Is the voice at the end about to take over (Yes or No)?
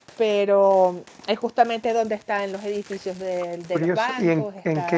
Yes